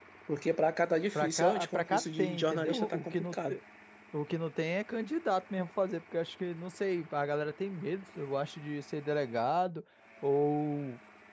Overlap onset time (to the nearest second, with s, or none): 1 s